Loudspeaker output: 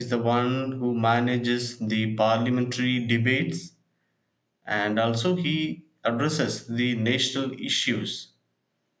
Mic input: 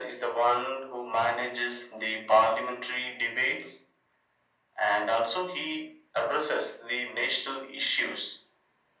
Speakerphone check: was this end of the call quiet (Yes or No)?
Yes